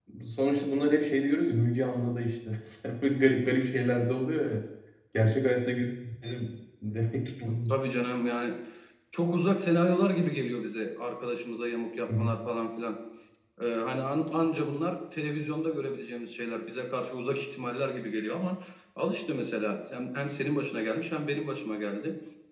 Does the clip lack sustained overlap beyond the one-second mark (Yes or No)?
Yes